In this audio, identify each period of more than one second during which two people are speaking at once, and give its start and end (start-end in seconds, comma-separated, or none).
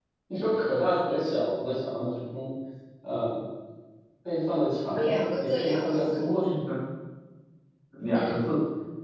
5.0-6.2